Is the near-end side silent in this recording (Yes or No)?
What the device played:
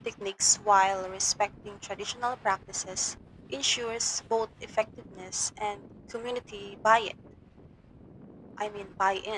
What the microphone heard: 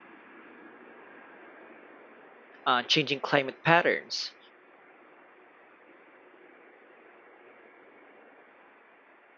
No